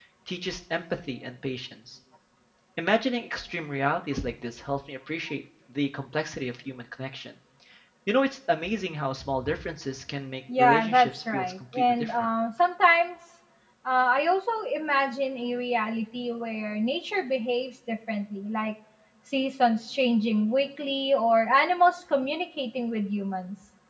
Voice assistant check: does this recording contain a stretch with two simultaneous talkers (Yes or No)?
Yes